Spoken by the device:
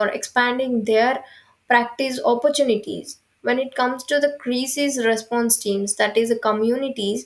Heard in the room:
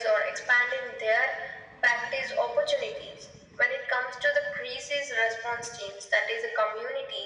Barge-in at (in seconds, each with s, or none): none